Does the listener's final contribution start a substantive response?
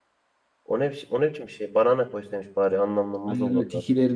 Yes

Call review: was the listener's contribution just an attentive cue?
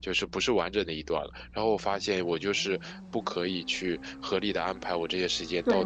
No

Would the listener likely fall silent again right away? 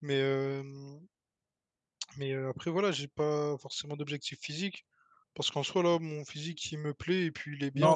No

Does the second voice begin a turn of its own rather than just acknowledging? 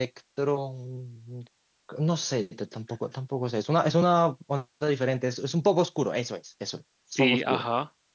Yes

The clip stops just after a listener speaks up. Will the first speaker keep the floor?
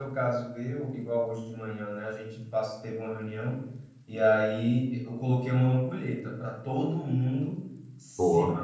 Yes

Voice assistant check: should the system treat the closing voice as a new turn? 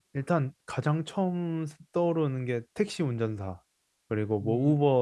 No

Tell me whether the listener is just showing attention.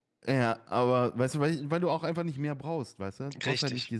Yes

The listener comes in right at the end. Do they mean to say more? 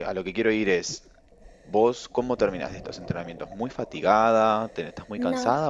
No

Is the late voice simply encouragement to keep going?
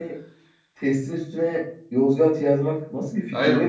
No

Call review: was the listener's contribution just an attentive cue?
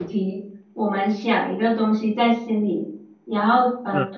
Yes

